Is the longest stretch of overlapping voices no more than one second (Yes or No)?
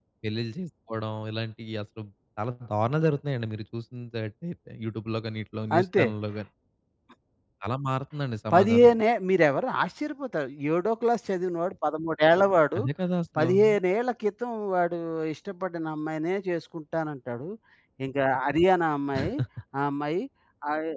Yes